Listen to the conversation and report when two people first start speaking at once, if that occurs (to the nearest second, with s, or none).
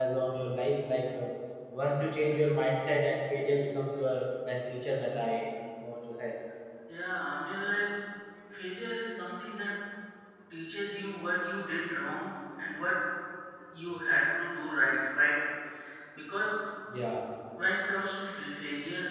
none